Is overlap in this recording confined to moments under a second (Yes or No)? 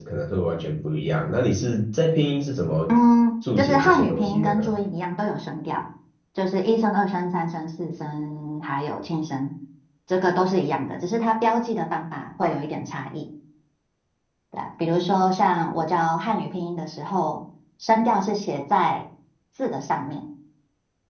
No